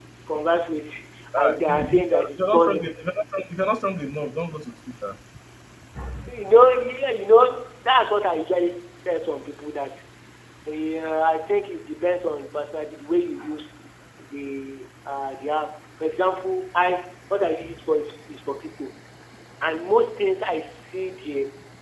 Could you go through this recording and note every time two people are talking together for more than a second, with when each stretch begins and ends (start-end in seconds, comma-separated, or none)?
1.4-2.8